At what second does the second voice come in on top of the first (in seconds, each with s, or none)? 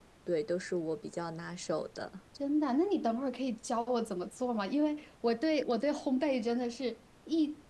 none